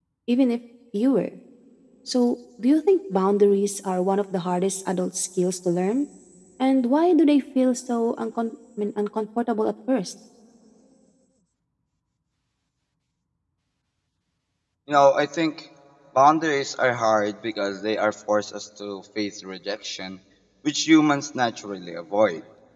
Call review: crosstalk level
none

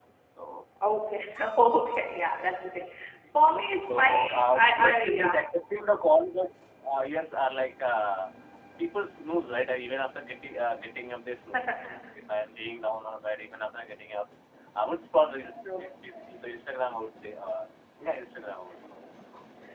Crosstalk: present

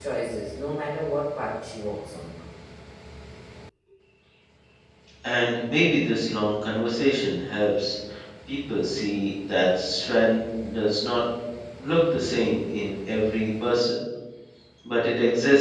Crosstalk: none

